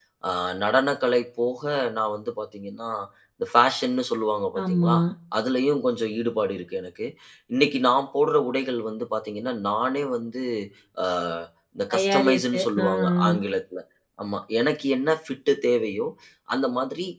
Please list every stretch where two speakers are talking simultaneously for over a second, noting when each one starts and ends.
11.9-13.4

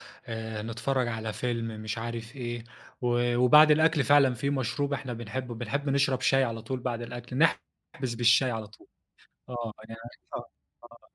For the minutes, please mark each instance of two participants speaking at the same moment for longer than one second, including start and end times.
none

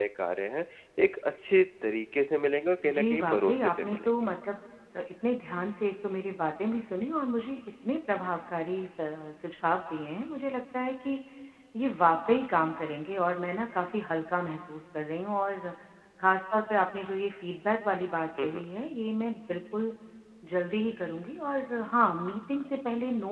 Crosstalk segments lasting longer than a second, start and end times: 2.8-4.1

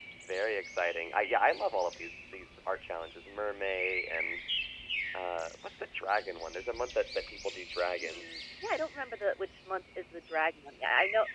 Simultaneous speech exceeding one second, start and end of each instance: none

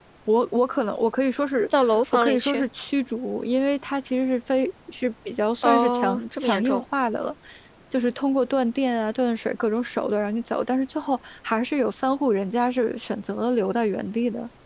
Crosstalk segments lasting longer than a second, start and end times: 5.6-6.8

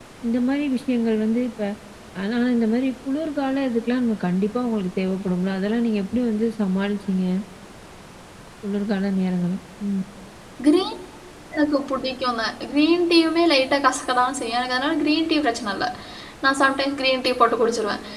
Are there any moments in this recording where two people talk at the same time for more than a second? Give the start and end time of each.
none

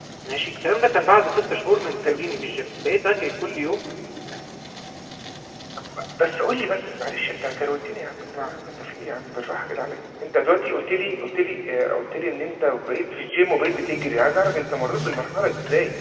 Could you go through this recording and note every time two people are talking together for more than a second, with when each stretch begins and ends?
none

